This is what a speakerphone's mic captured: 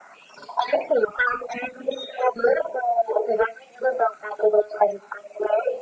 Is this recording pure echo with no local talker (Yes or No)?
Yes